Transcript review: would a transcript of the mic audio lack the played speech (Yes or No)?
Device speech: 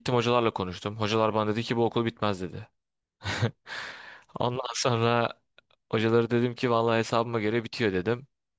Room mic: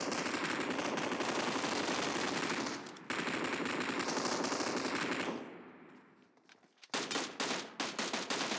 Yes